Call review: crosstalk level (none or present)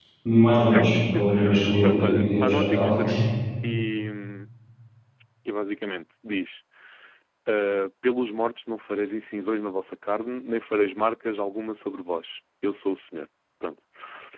present